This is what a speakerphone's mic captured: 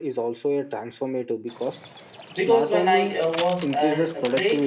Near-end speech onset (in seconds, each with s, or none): 2.3 s